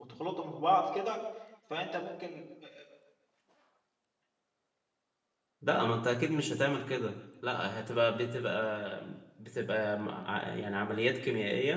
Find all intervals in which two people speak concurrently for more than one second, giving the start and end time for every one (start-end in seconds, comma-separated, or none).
none